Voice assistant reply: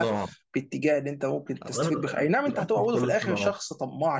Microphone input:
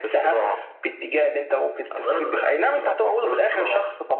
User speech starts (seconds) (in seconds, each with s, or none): none